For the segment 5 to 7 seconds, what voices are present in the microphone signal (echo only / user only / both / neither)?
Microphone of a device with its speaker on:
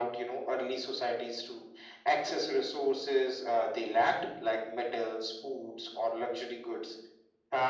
echo only